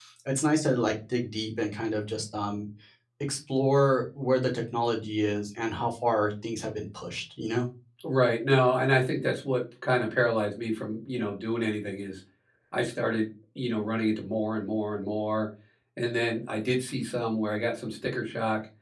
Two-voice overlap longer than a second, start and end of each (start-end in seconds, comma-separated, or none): none